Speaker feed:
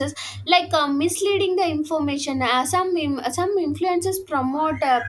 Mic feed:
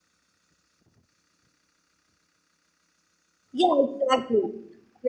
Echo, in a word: none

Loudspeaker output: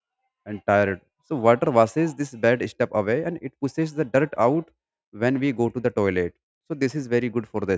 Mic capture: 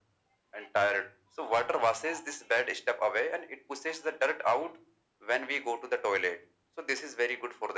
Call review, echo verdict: present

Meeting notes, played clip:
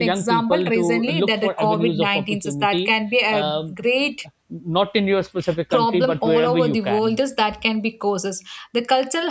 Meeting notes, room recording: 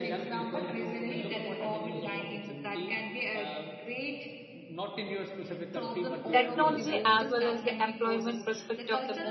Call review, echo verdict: present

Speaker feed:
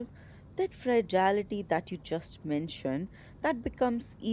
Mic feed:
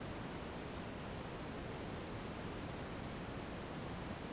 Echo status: none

